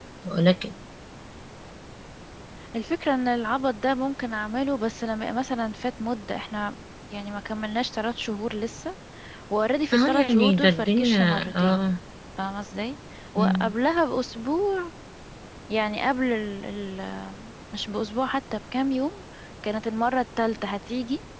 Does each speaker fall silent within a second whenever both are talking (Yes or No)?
No